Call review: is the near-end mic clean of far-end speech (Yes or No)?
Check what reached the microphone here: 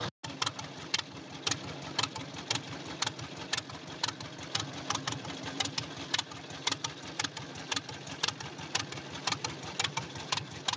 Yes